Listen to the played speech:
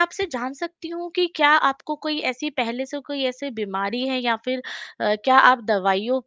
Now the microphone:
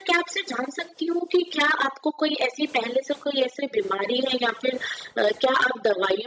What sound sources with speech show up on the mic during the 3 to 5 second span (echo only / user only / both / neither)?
echo only